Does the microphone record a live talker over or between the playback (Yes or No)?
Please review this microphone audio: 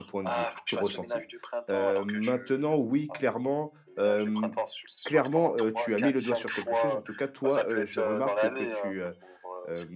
Yes